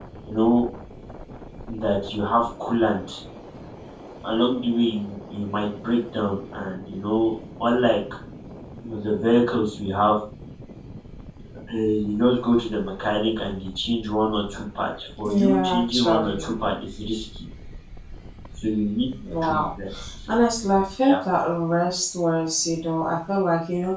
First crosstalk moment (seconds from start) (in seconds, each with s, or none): 15.2 s